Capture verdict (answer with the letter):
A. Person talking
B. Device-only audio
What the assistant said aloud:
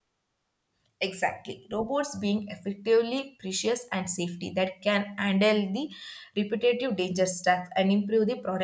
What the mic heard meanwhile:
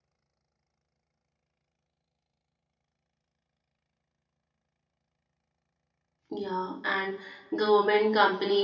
A